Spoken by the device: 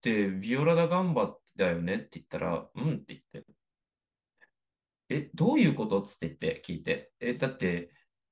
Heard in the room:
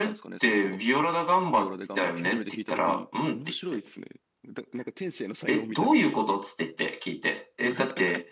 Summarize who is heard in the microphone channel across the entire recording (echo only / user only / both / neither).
both